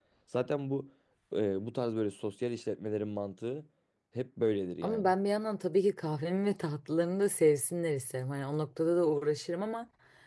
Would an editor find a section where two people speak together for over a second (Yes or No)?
No